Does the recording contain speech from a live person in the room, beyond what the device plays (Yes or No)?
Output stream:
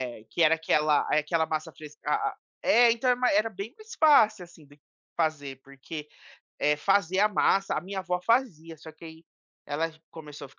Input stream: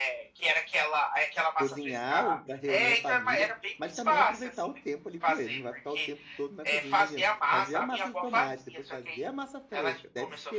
Yes